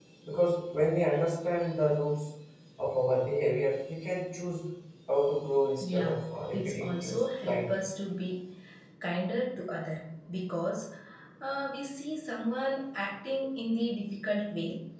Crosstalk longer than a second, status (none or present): present